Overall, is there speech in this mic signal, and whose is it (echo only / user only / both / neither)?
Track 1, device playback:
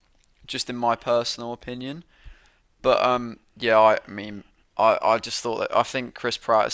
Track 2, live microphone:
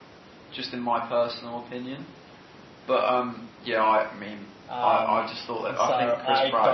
both